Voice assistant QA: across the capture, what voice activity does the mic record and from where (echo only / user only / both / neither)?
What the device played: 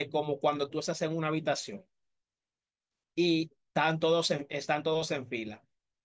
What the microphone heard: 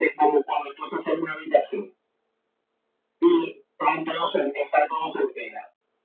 echo only